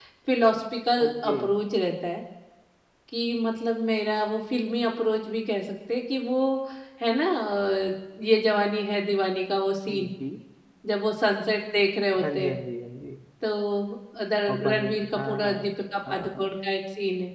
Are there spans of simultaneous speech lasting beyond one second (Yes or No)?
Yes